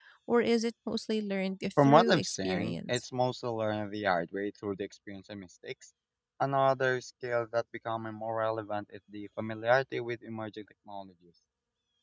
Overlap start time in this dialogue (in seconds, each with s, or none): 1.8 s